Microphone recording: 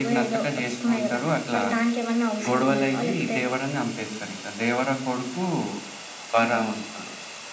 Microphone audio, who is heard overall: echo only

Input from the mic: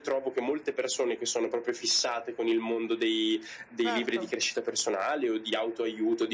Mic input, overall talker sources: both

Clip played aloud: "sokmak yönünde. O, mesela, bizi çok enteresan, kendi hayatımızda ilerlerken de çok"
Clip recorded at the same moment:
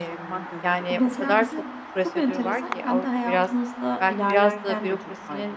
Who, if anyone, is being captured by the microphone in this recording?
both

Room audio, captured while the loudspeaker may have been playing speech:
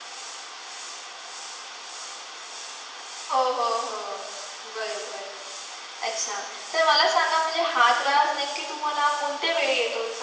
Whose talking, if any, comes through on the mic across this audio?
echo only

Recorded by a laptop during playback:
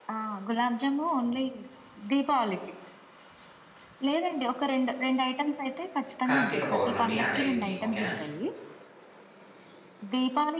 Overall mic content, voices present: both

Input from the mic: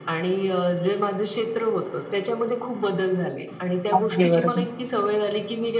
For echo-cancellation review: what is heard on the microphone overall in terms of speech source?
both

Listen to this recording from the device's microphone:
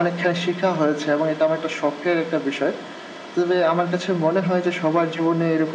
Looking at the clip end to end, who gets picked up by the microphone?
echo only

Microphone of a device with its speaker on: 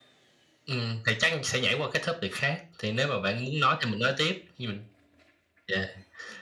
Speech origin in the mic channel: echo only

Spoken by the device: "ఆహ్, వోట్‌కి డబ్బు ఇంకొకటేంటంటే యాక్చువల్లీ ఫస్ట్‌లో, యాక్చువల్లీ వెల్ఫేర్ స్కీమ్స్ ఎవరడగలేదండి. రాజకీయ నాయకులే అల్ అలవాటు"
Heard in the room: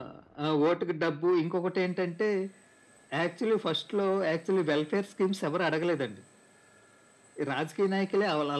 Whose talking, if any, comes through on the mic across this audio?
echo only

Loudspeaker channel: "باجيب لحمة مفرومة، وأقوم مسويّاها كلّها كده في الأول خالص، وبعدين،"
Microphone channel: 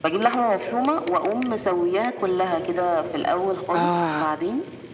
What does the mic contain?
both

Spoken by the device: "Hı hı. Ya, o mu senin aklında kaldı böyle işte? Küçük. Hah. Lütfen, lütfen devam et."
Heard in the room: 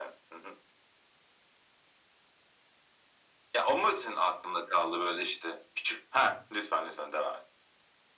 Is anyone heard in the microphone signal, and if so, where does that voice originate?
echo only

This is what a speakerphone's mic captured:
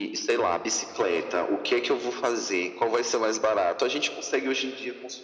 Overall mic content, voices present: echo only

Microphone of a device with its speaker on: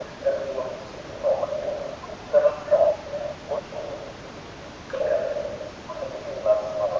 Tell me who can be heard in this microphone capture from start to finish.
echo only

